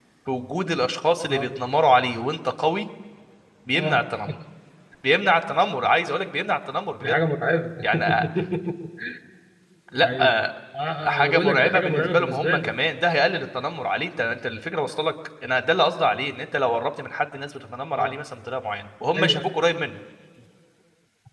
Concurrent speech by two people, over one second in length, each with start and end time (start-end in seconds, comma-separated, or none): 11.0-12.7